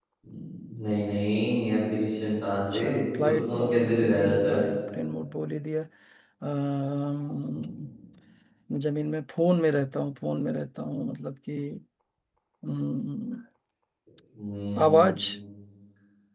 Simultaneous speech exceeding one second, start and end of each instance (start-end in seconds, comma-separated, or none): 3.2-4.6